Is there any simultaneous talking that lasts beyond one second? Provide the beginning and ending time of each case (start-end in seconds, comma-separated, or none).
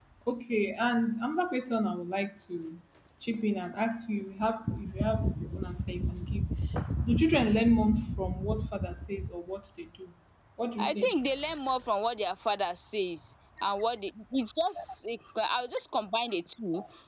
none